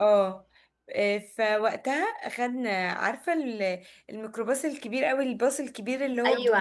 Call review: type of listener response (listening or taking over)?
taking over